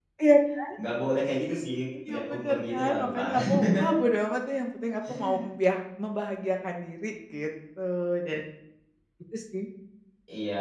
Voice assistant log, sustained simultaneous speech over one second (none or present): present